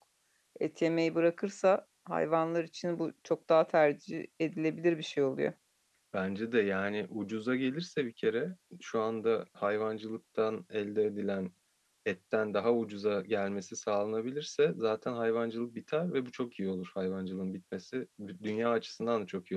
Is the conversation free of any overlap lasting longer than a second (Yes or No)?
Yes